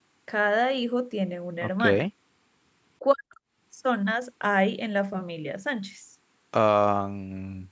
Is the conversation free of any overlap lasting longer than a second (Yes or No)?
Yes